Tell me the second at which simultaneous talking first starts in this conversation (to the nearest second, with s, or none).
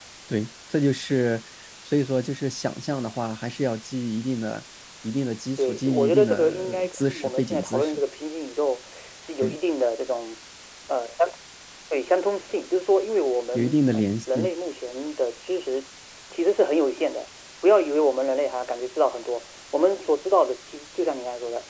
6 s